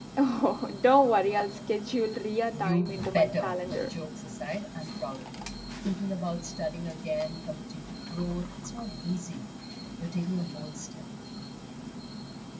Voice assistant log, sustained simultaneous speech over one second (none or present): present